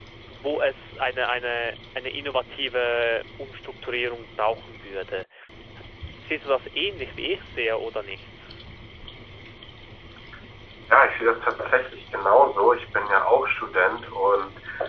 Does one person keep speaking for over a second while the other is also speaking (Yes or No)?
No